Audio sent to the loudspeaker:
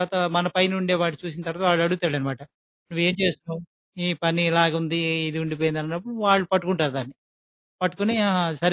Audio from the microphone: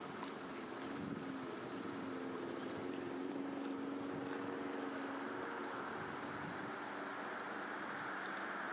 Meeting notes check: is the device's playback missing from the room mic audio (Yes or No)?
Yes